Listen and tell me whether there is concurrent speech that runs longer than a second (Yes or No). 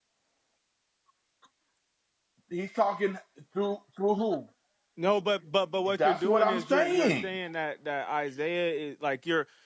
Yes